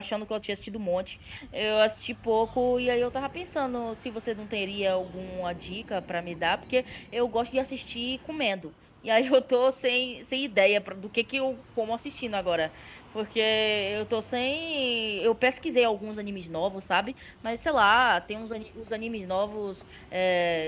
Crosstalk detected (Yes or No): No